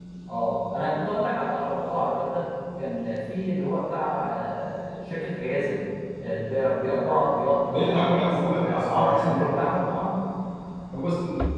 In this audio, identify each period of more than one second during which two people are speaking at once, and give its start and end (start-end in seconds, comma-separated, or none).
7.7-9.7